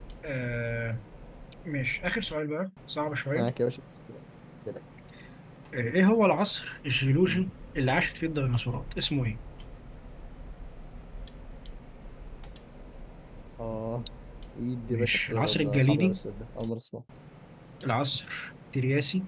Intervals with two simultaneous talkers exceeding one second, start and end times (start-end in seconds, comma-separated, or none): 14.9-16.2